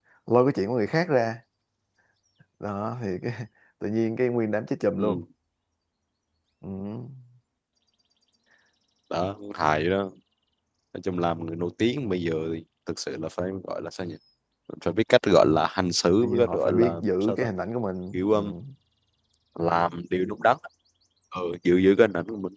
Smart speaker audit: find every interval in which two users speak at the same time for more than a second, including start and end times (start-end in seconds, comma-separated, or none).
16.2-17.5